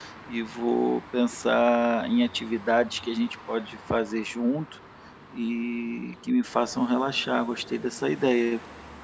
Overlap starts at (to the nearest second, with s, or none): none